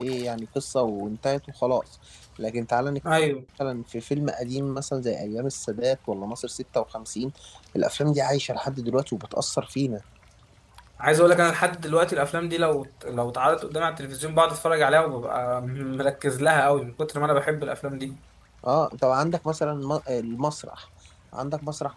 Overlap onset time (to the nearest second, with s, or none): none